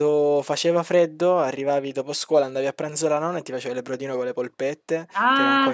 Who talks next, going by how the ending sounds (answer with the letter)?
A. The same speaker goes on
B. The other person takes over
A